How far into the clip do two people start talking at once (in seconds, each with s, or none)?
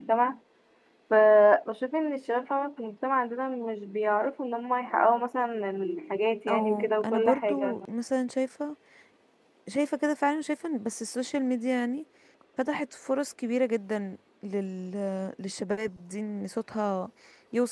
6.5 s